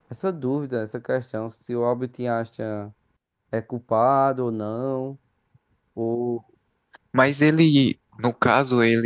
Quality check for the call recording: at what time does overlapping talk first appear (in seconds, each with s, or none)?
none